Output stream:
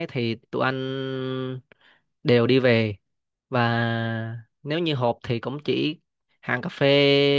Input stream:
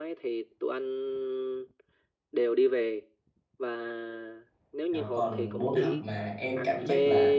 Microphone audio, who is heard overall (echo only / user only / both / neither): both